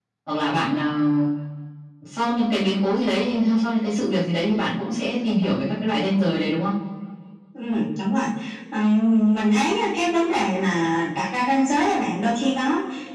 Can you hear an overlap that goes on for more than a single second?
No

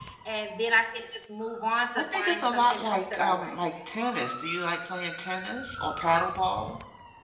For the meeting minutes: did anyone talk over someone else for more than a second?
Yes, from 2.0 s

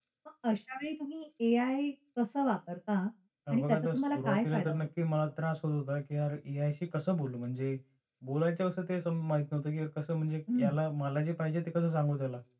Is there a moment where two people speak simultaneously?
Yes, from 3.5 s

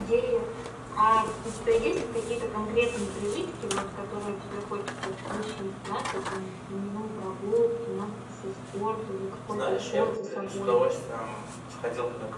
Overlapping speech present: Yes, from 9.6 s

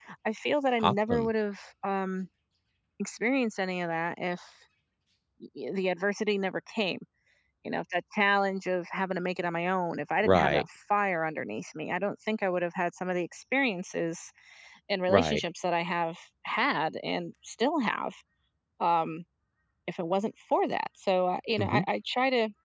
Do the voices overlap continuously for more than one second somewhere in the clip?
No

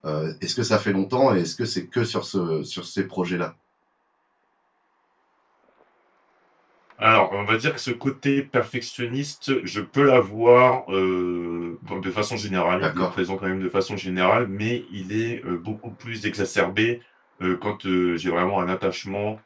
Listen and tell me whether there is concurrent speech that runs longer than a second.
No

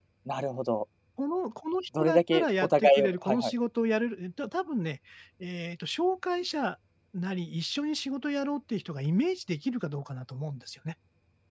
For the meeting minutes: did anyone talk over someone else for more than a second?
Yes, from 2.0 s

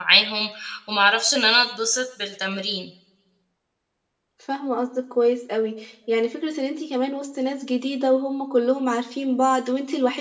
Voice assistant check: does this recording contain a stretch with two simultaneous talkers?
No

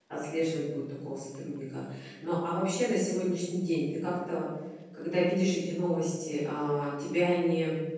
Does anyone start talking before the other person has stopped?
No

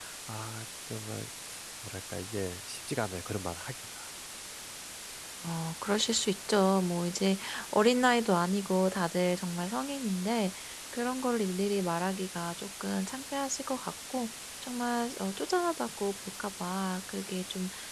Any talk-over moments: No

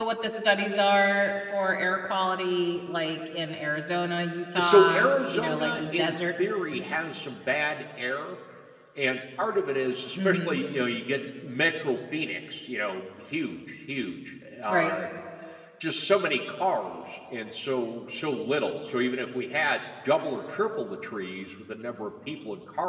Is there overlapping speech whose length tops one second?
Yes, from 4.6 s

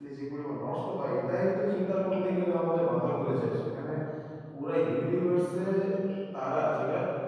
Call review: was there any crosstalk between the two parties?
No

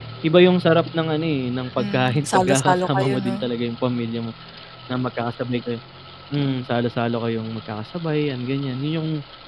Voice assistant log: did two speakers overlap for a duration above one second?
Yes, from 1.8 s

